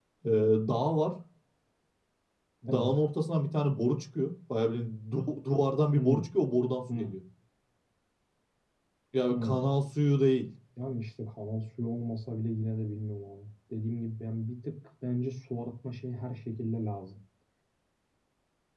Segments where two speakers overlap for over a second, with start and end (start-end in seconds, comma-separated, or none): none